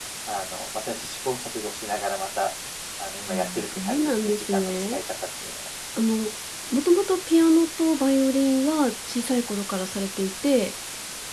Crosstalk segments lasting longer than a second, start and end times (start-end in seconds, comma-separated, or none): 3.3-5.0